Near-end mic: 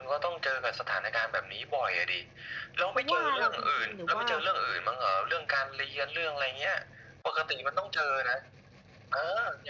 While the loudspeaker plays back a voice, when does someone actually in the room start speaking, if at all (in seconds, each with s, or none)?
2.9 s